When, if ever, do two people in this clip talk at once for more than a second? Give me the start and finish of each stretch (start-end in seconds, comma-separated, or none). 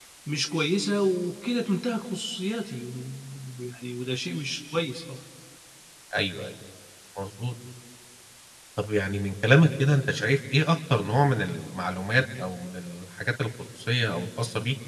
none